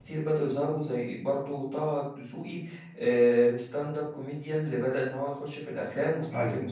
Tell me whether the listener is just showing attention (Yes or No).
No